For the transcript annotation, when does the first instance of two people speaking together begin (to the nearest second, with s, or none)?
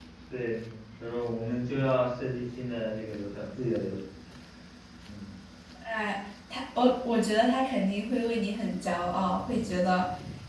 none